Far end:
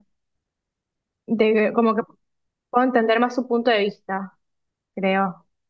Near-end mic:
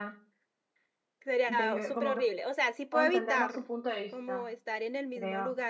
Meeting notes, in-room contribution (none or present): present